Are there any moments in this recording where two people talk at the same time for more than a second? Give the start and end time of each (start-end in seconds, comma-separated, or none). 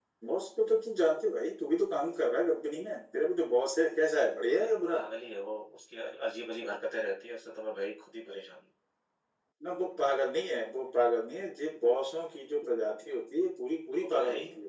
none